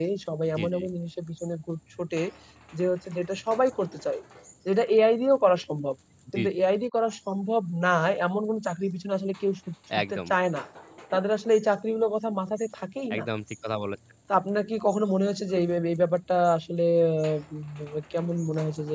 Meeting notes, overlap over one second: none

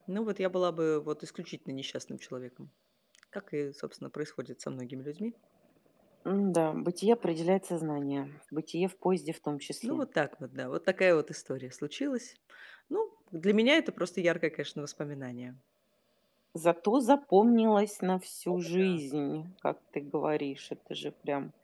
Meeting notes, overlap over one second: none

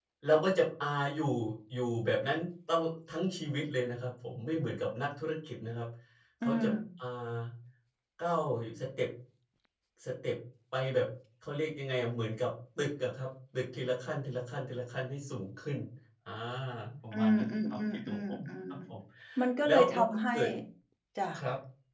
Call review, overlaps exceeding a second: present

